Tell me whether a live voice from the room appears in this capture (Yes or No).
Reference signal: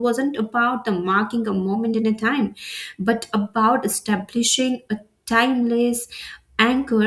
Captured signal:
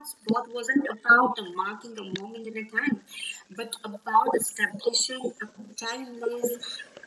No